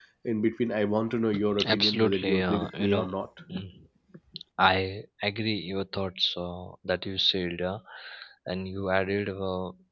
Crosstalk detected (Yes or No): Yes